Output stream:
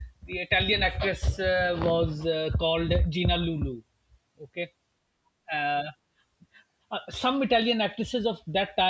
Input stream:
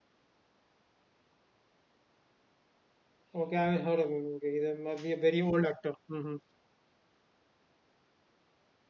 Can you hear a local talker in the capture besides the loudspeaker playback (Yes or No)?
Yes